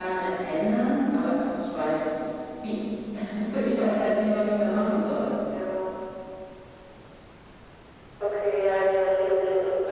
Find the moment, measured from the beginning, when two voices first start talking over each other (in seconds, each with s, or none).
none